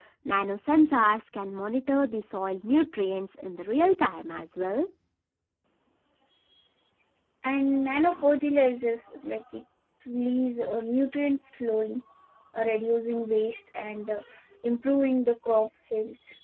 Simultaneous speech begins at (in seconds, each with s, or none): none